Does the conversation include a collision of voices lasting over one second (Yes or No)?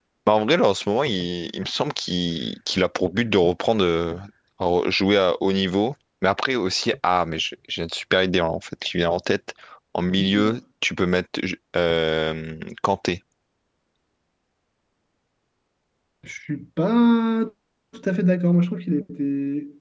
No